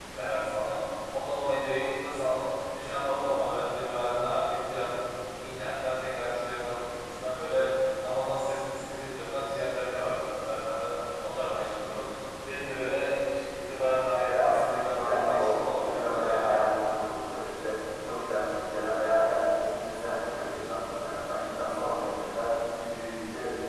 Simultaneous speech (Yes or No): Yes